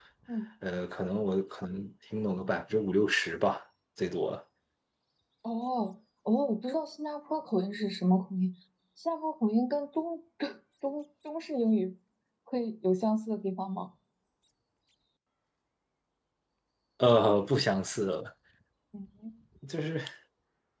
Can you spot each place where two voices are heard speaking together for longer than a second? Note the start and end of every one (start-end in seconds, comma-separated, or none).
none